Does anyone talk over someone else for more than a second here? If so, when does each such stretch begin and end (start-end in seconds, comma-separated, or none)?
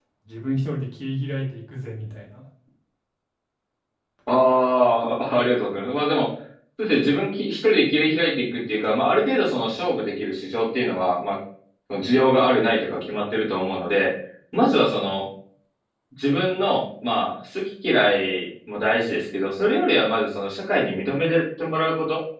none